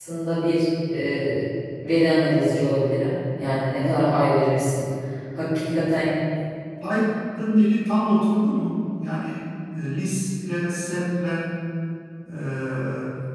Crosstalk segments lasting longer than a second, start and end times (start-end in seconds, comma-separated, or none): none